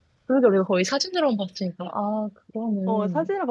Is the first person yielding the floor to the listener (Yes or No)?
Yes